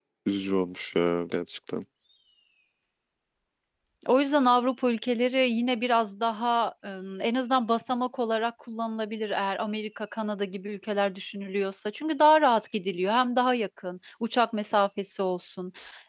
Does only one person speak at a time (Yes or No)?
Yes